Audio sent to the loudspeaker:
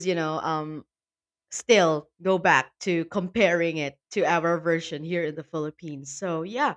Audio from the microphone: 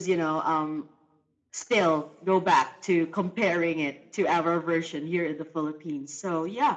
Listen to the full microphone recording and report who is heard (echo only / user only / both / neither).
echo only